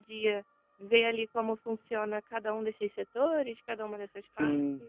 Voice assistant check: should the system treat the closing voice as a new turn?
Yes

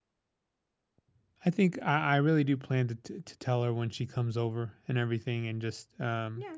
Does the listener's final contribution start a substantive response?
Yes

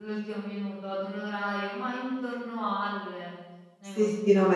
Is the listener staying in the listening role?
No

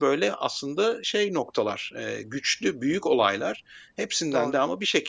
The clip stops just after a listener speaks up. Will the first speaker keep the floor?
Yes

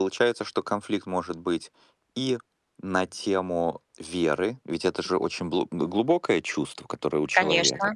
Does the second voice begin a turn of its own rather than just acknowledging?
No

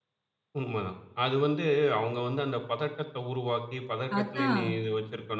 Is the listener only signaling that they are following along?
Yes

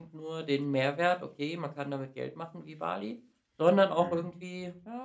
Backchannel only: Yes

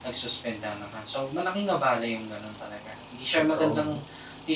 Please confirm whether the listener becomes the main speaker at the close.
No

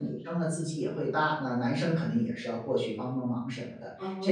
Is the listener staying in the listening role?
Yes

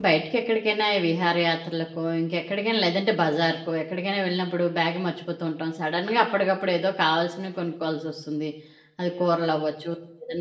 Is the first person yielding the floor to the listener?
No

